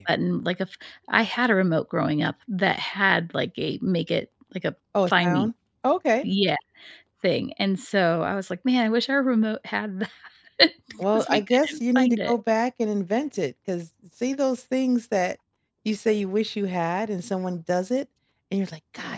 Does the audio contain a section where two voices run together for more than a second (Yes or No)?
Yes